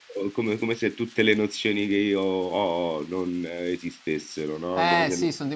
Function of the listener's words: taking over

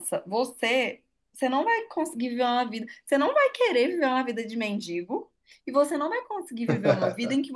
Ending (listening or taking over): listening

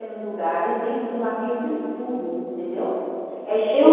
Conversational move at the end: listening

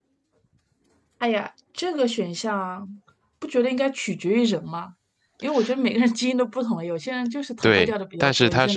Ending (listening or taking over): taking over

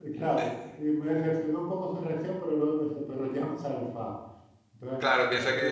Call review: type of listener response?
taking over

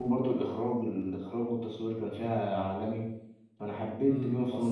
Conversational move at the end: taking over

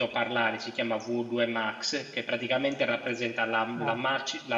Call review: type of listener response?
listening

